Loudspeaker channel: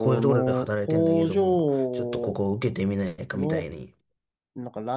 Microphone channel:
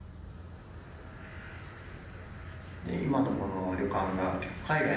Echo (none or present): none